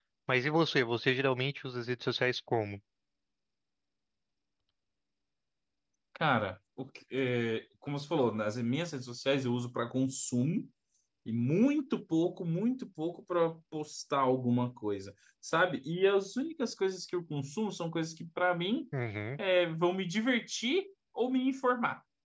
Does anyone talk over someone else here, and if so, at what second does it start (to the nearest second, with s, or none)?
none